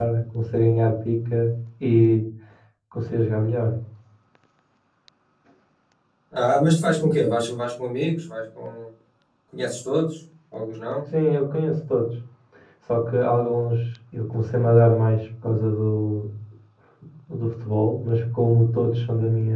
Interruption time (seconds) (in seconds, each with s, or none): none